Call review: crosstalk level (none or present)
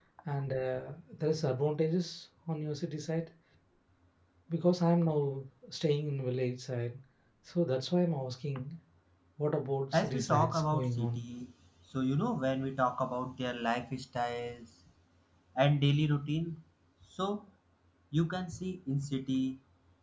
present